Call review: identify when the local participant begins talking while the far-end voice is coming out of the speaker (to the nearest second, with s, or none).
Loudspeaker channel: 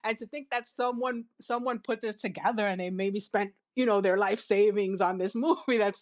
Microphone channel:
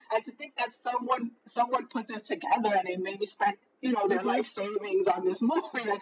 4 s